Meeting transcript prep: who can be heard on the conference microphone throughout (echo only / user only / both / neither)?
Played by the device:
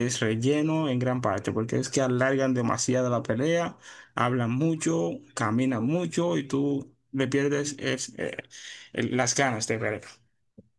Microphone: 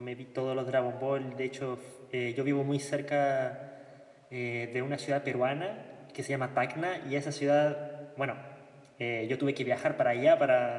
user only